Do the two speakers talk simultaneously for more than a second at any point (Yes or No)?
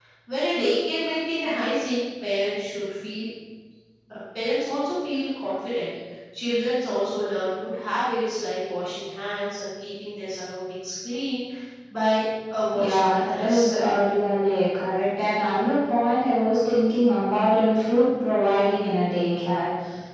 Yes